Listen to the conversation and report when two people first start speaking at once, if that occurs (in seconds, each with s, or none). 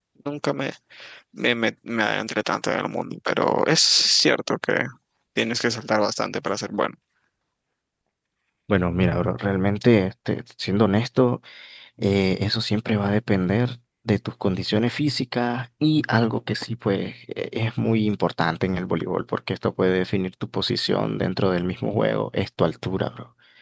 none